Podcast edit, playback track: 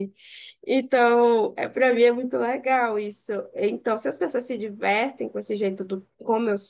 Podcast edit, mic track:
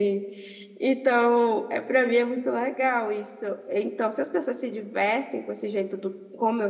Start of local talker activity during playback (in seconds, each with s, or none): none